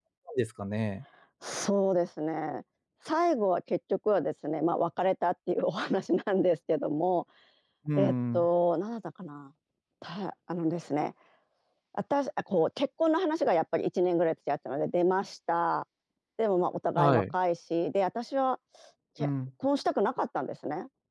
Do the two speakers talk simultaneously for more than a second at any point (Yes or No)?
No